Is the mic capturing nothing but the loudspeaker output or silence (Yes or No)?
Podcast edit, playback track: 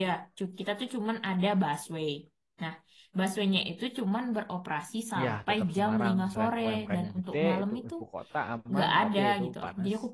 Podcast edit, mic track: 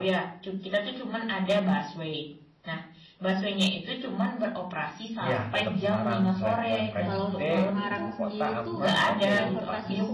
No